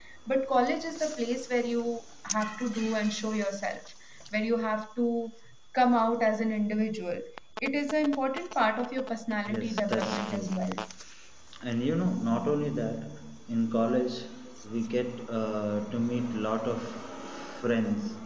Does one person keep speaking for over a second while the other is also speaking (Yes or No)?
Yes